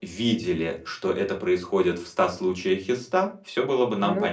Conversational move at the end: listening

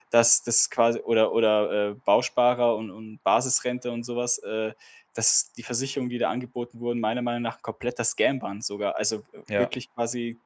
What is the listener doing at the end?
listening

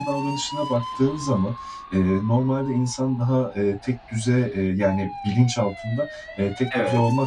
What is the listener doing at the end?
listening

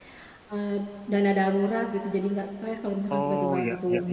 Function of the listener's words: taking over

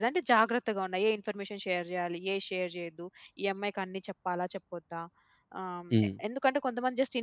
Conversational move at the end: listening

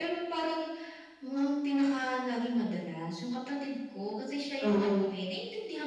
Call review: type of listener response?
listening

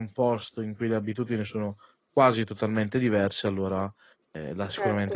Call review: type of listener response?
taking over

